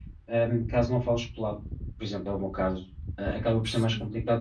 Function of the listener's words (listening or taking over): listening